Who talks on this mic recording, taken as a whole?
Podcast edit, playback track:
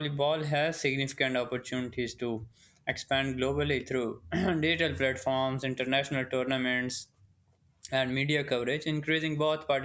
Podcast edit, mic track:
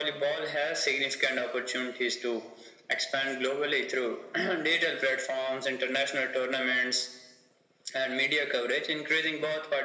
echo only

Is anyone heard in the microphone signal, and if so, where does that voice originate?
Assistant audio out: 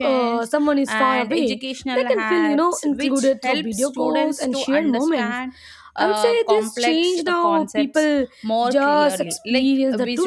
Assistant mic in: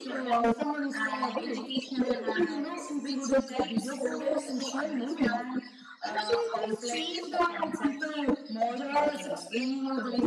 echo only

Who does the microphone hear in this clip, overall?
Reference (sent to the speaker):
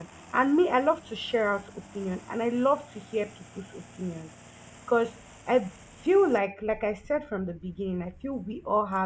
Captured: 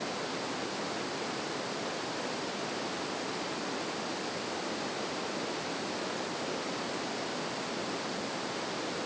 neither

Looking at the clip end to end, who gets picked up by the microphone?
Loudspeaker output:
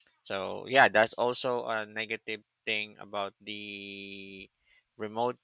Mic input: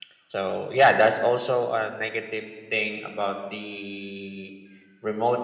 echo only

